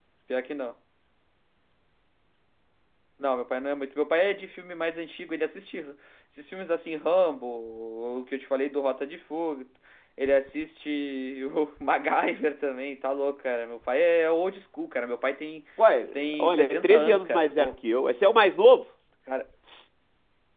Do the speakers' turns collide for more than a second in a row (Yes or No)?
Yes